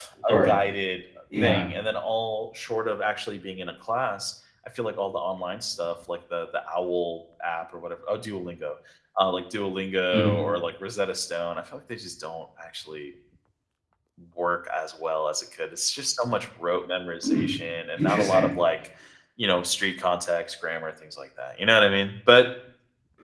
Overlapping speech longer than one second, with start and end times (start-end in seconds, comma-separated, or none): none